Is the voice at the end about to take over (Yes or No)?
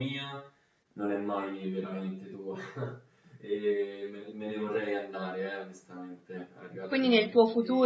Yes